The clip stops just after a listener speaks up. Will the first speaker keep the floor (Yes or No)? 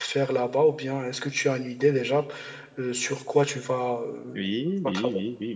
No